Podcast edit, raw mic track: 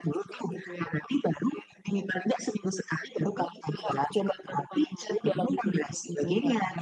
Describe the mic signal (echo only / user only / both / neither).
echo only